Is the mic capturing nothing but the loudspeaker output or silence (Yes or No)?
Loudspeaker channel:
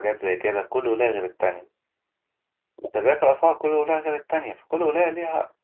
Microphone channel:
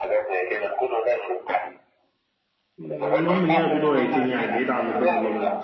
No